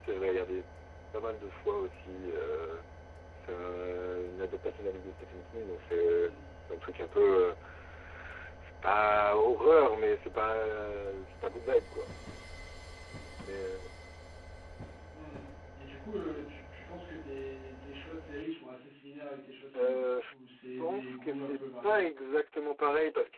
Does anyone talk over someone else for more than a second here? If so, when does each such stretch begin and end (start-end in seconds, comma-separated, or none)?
20.8-22.0